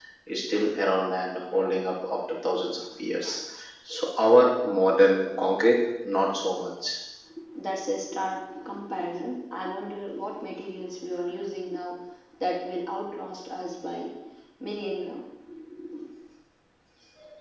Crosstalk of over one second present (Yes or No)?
No